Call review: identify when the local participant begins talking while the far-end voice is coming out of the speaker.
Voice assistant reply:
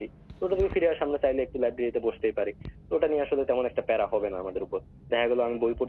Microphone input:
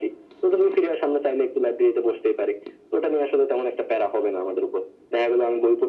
none

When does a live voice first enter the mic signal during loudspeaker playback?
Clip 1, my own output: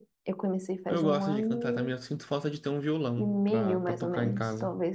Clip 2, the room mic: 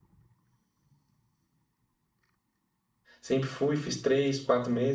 3.2 s

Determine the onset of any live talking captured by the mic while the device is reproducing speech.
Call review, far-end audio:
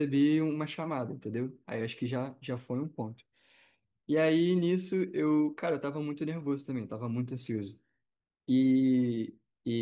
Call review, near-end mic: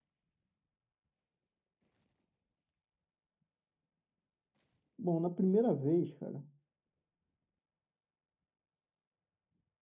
5.0 s

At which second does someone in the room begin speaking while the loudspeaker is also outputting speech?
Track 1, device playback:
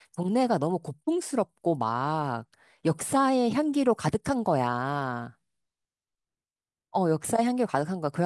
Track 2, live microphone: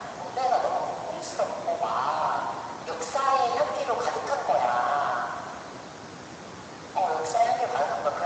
none

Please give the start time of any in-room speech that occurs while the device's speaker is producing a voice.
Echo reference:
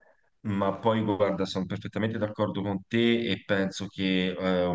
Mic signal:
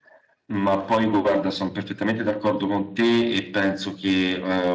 none

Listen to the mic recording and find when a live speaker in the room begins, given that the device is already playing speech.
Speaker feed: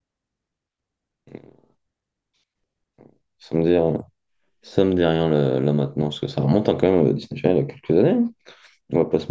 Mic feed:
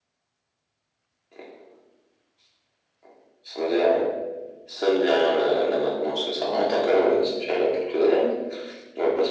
none

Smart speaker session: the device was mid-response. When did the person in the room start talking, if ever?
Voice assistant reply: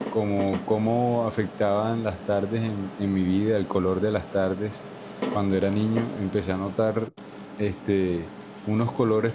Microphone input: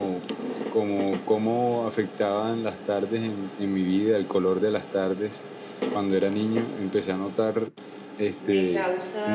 8.4 s

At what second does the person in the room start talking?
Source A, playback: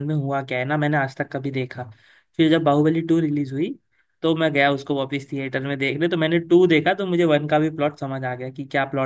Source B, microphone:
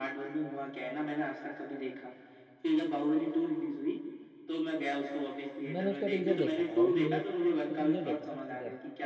5.7 s

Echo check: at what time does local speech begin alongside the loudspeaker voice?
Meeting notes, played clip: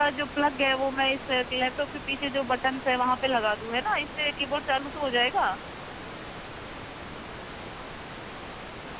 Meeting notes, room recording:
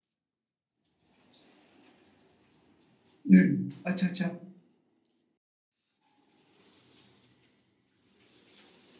3.3 s

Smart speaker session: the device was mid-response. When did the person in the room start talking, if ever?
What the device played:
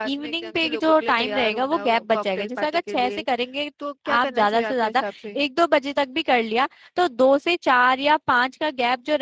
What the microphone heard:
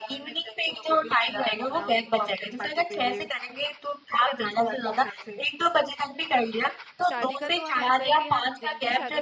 7.1 s

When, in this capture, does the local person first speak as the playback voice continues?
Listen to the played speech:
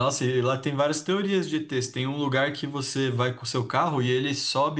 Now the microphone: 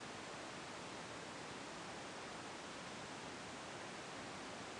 none

